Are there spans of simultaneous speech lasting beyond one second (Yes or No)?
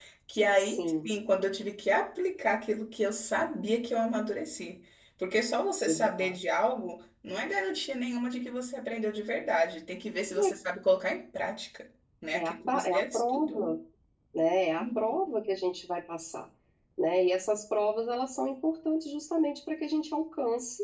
Yes